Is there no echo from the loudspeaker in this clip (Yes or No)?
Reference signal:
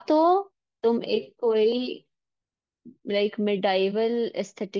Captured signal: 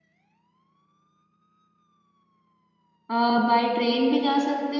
Yes